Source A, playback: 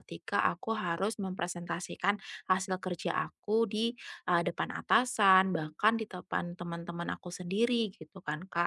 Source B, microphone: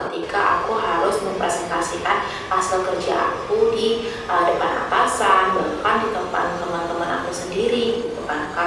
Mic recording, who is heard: echo only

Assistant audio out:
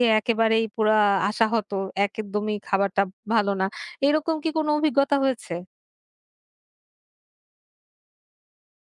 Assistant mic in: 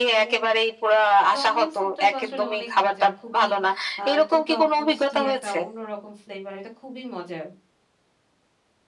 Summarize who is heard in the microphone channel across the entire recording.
both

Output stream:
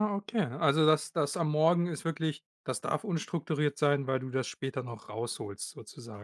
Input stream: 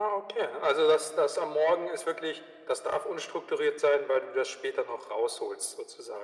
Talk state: echo only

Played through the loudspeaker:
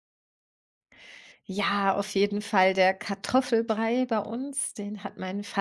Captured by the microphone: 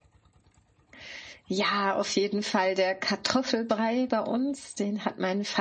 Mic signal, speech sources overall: echo only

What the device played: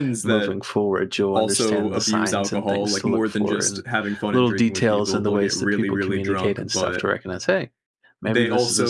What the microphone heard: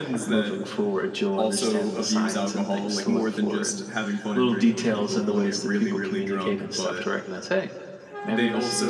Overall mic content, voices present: echo only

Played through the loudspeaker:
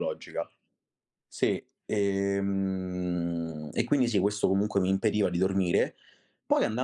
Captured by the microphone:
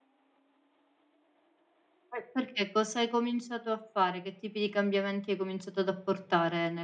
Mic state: user only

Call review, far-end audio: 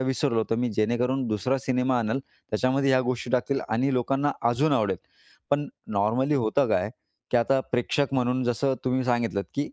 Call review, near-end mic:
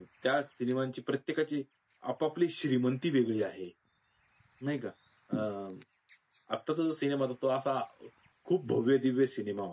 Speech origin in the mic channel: user only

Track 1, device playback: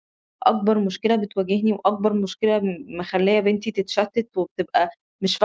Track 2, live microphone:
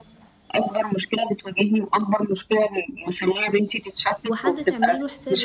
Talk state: both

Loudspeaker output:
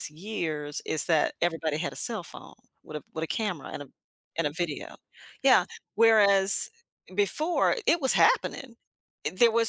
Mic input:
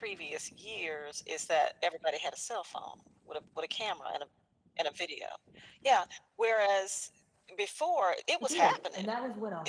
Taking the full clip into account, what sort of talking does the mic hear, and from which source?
both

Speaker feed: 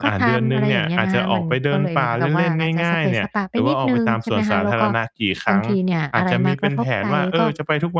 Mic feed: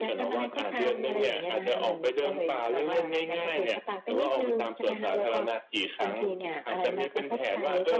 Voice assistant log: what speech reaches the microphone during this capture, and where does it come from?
echo only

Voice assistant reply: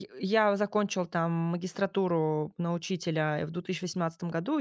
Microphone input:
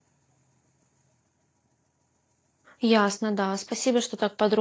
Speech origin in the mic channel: user only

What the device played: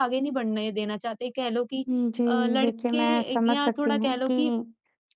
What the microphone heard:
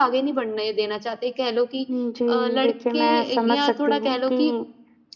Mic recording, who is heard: both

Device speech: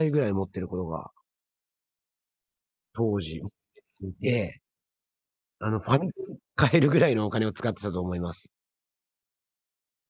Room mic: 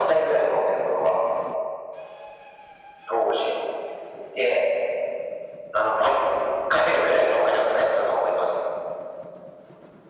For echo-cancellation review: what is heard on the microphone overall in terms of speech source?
echo only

